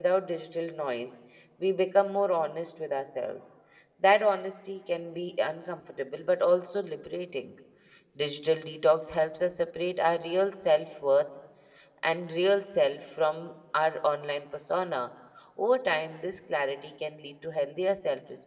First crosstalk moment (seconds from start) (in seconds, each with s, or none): none